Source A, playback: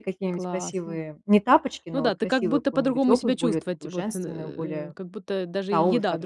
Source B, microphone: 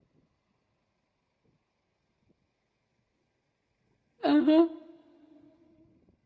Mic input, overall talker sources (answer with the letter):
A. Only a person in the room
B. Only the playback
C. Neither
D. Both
A